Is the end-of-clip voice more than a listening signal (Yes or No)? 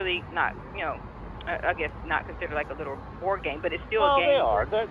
Yes